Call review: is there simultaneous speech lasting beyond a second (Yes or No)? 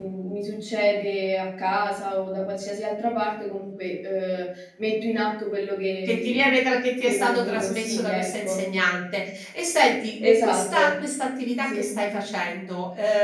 Yes